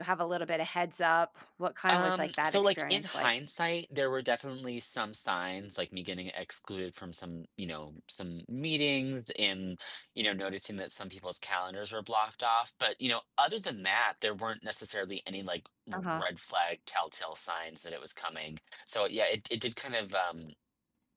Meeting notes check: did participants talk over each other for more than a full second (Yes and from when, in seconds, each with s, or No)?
Yes, from 1.9 s